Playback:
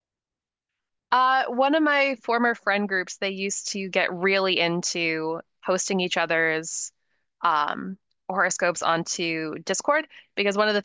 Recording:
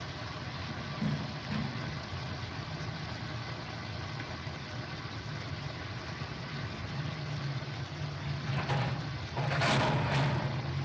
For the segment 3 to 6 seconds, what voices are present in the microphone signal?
neither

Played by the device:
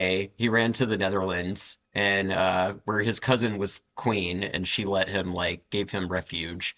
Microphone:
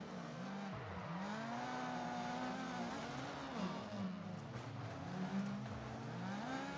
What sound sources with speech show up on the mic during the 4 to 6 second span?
neither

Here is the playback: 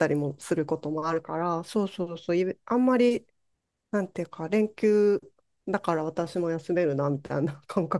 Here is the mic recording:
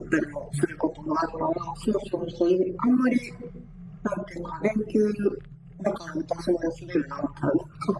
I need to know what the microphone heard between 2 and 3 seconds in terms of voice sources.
echo only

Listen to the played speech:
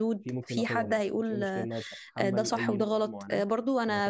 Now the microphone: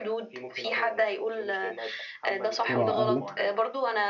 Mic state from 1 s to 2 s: echo only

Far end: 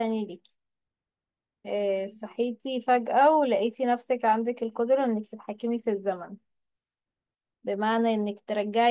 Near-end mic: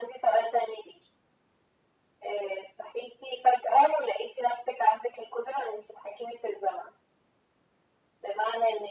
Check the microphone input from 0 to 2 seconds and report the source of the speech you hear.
echo only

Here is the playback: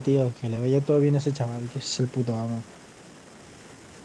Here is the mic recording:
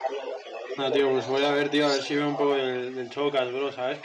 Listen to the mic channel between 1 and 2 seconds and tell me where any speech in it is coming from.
both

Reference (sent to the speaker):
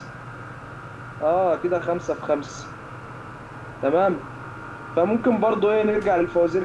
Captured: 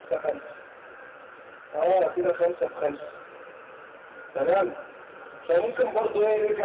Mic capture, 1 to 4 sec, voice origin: echo only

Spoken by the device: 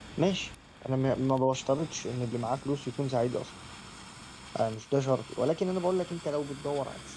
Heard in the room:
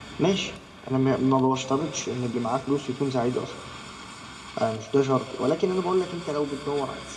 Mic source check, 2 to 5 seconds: echo only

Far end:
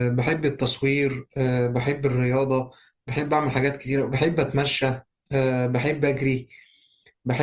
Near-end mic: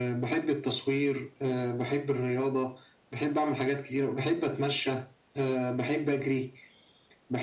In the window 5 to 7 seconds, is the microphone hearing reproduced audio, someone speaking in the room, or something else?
echo only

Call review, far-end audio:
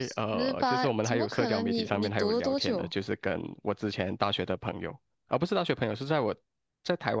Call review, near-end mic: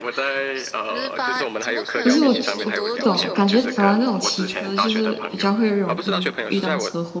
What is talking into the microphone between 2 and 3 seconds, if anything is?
both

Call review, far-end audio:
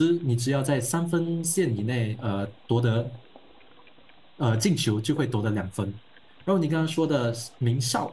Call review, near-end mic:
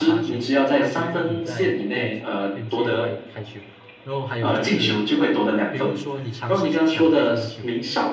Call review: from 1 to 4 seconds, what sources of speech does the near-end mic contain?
both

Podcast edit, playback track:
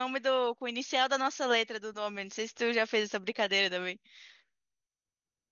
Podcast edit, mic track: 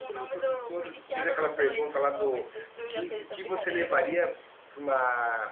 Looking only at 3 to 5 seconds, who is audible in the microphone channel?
both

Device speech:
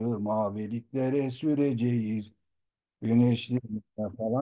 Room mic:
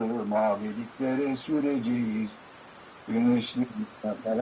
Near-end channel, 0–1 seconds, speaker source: echo only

